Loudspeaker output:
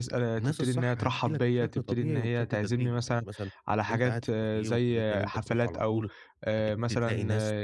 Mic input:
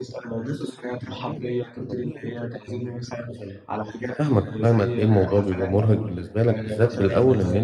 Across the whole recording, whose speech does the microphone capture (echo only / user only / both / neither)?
both